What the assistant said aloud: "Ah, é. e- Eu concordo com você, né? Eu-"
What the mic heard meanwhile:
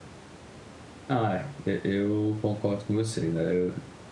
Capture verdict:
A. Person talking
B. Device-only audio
B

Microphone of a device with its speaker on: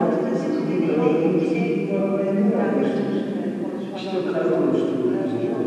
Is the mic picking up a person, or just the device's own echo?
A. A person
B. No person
A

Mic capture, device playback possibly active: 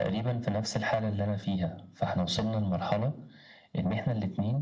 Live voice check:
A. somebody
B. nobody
B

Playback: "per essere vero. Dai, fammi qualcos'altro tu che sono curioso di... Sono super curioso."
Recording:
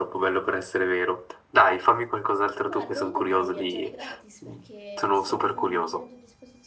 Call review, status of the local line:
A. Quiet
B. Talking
B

